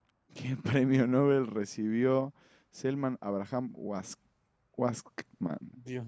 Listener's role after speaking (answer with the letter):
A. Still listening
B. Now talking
B